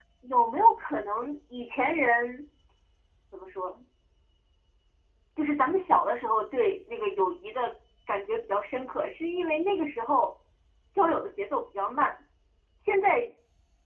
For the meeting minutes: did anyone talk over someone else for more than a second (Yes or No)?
No